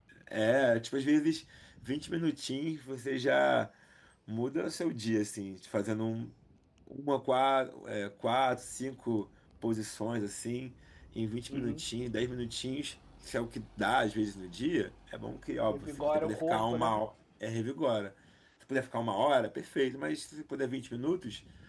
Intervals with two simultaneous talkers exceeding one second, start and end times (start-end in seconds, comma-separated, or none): 15.7-17.1